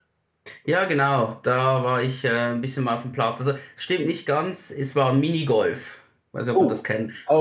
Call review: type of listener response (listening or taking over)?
taking over